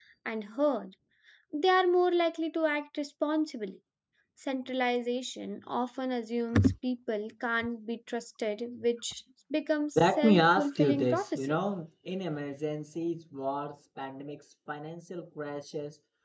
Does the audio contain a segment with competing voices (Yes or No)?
Yes